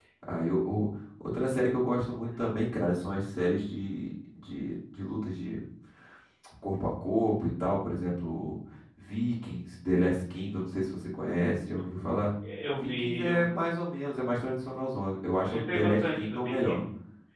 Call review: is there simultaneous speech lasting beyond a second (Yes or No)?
Yes